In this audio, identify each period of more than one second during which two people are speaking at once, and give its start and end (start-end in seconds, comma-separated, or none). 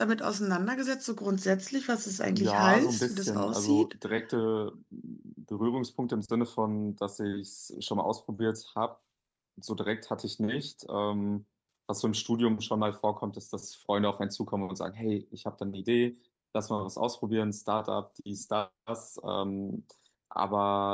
2.3-3.9